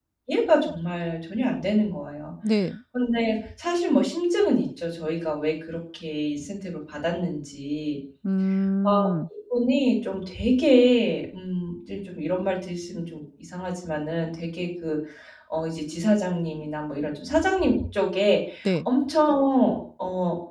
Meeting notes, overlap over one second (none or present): none